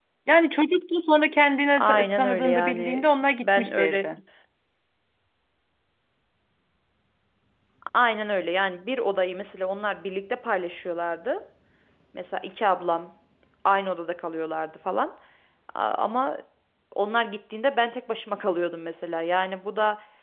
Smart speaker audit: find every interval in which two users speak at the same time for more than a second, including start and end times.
1.8-4.0

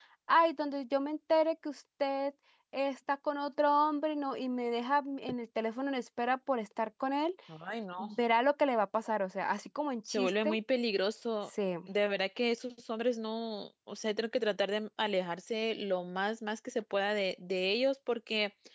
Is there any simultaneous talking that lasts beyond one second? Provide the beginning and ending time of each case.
none

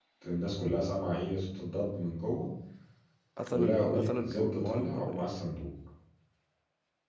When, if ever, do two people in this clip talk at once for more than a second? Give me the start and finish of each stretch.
3.5-5.2

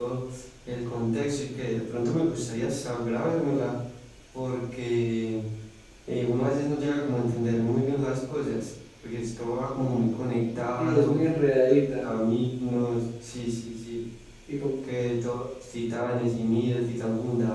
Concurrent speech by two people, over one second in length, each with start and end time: none

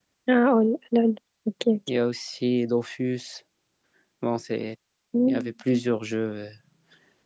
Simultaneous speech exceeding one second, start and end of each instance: none

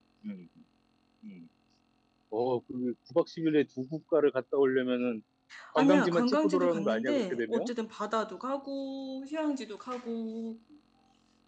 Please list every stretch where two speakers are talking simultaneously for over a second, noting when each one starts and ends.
5.8-7.7

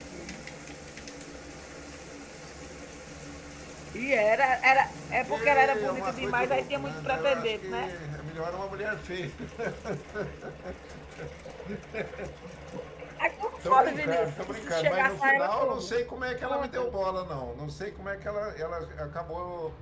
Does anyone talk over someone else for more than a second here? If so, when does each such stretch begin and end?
5.3-7.9, 13.7-15.9

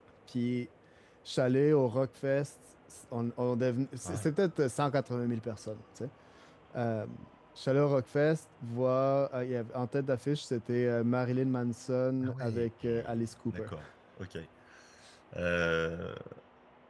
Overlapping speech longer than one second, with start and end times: 12.2-13.7

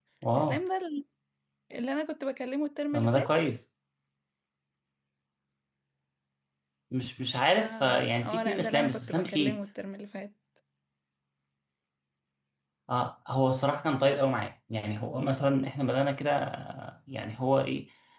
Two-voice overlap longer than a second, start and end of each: 7.6-9.6

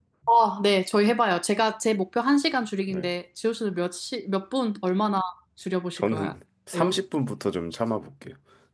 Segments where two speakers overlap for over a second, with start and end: none

